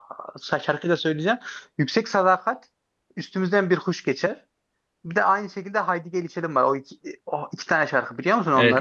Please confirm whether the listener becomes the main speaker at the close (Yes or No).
Yes